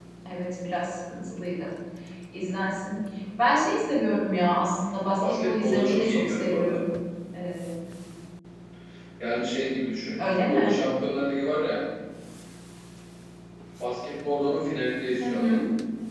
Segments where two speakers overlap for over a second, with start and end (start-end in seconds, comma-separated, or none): 5.3-6.8